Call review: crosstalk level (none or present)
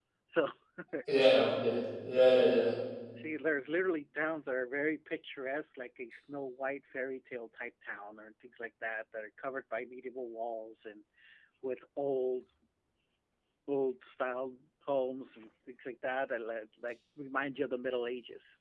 none